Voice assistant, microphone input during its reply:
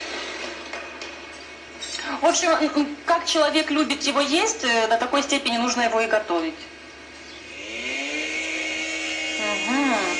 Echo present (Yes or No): Yes